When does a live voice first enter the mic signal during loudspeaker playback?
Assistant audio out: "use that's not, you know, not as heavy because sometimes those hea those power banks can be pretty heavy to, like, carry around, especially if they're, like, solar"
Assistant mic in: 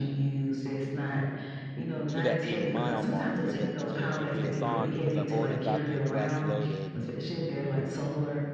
2.1 s

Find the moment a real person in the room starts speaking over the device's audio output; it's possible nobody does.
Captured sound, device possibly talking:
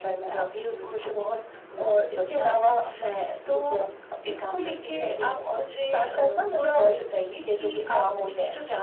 none

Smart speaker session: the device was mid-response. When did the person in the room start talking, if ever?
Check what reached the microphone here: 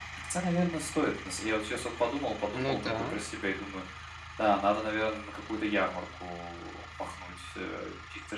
2.6 s

